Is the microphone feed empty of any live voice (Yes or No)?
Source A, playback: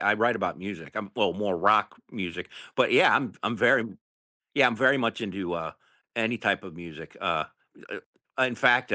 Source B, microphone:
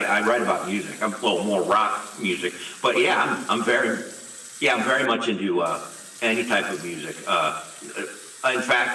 Yes